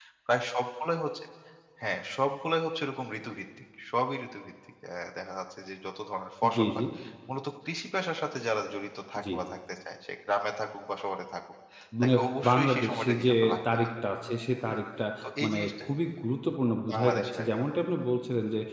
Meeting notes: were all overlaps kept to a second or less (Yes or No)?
No